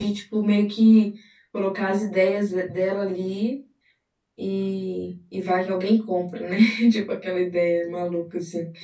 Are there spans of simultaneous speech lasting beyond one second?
No

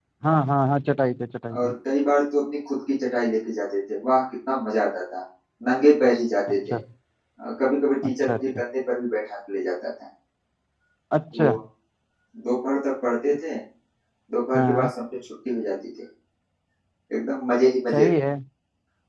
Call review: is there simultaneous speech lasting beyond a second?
No

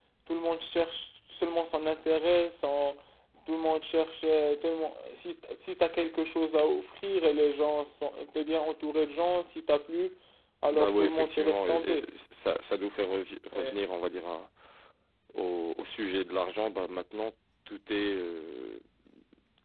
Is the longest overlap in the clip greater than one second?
Yes, from 10.7 s

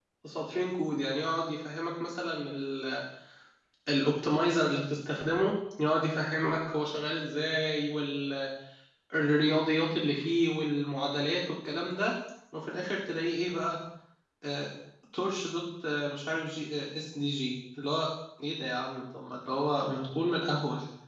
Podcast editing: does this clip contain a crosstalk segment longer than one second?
No

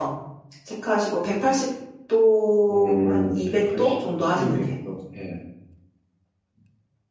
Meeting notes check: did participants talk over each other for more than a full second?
Yes, from 2.7 s

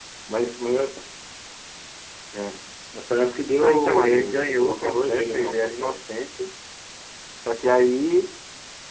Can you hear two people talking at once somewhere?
Yes, from 3.6 s

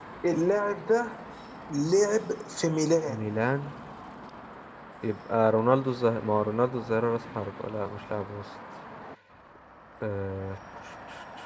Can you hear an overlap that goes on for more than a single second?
No

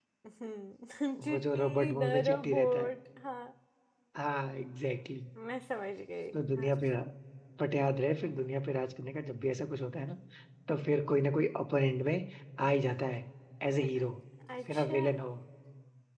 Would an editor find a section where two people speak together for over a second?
Yes, from 1.3 s

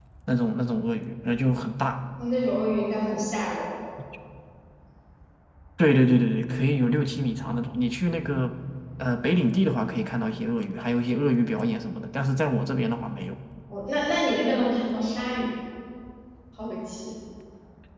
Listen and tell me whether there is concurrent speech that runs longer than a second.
No

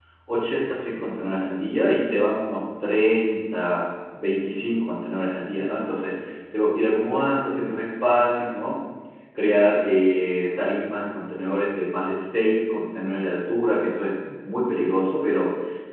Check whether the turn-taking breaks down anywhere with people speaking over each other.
No

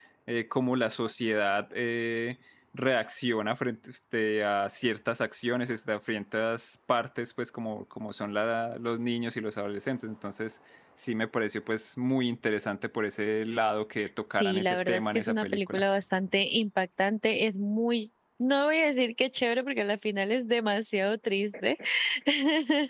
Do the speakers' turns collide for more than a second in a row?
Yes, from 14.4 s

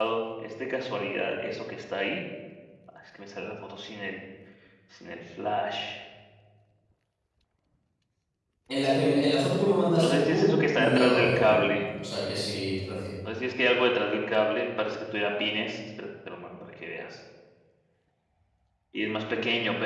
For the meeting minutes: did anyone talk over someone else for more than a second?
Yes, from 9.9 s

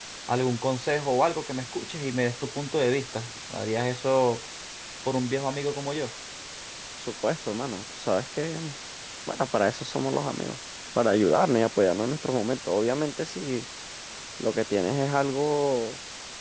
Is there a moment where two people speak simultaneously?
No

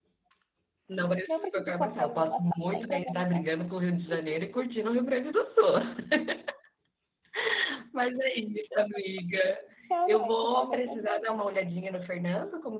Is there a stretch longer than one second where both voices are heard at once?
Yes, from 1.3 s

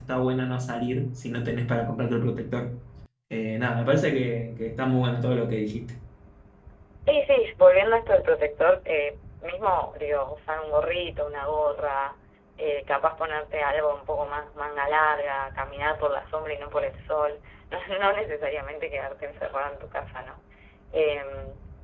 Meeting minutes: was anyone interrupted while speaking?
No

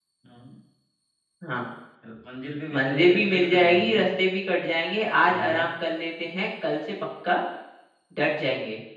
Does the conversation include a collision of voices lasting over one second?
Yes, from 2.7 s

